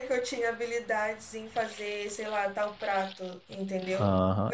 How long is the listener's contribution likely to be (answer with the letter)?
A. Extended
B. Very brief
A